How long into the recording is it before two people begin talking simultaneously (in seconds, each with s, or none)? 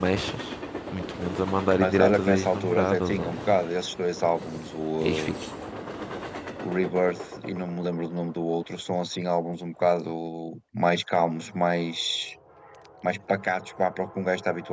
1.8 s